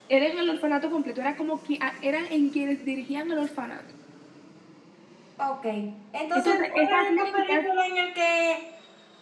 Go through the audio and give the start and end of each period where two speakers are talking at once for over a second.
6.4-7.6

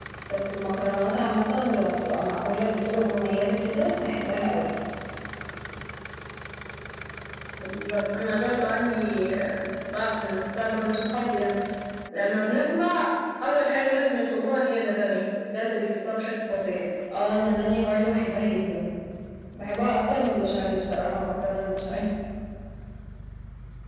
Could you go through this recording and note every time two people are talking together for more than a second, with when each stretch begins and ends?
none

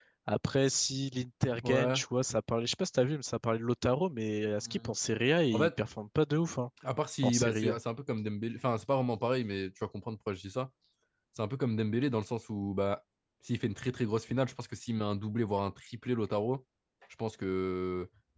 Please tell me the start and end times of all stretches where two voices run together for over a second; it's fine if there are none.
none

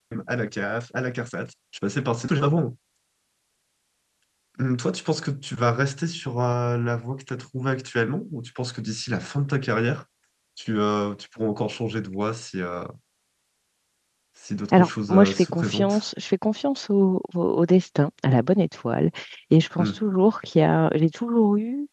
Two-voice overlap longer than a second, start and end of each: 14.7-16.0

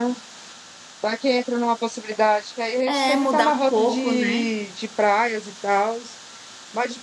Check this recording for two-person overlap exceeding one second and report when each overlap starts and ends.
2.9-4.5

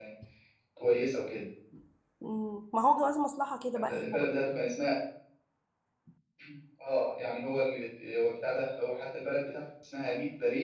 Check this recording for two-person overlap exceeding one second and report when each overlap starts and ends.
none

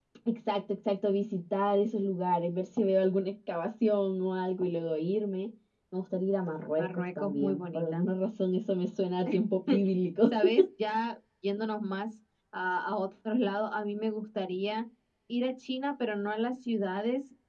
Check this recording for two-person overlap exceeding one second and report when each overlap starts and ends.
6.8-8.1

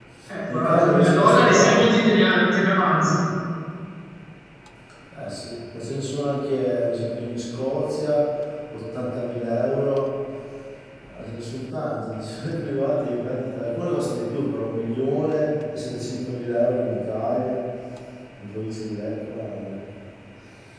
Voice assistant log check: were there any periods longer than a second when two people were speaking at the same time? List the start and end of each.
0.5-1.9

